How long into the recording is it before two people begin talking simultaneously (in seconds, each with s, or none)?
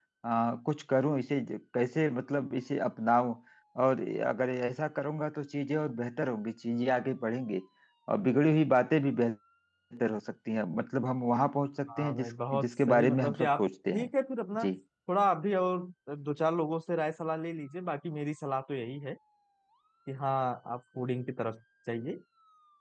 11.9 s